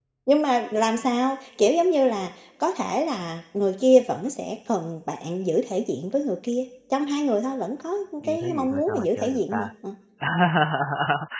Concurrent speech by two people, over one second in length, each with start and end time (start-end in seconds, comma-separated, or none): 8.2-9.7